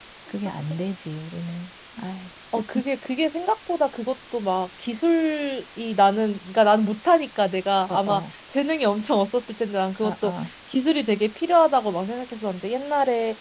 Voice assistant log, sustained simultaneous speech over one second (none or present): none